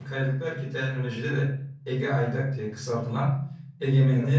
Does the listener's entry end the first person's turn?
No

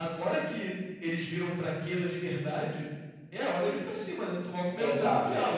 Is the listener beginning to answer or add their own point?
Yes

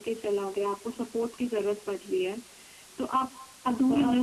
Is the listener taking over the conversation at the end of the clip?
No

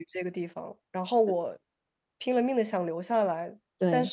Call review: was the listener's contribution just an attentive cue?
Yes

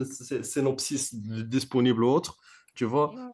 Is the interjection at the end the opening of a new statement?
Yes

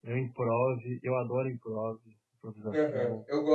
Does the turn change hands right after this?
Yes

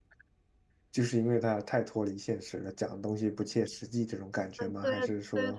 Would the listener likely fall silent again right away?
No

